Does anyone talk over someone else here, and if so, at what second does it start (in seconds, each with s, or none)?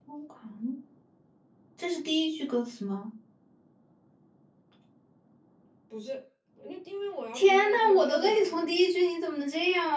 7.3 s